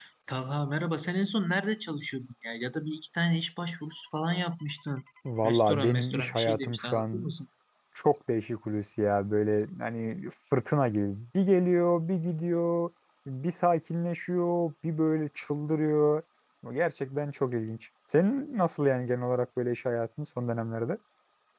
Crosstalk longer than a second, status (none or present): present